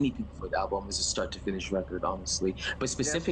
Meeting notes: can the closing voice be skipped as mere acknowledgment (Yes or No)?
Yes